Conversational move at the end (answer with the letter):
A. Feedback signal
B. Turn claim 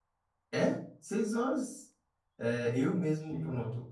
A